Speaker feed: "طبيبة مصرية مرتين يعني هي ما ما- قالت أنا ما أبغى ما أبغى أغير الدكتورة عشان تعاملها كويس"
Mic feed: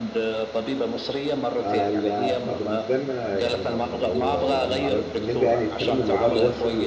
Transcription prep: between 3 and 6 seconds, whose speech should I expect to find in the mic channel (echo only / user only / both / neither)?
both